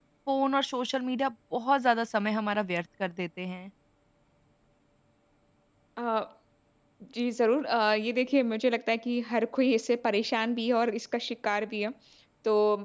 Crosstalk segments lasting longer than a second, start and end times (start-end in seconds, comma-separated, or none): none